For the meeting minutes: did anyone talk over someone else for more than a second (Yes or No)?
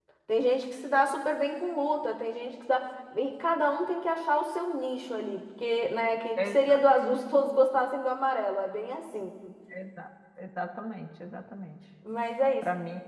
No